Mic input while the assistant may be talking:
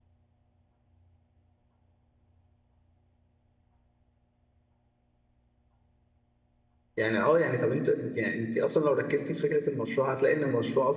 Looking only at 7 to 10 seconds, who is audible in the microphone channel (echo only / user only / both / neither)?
user only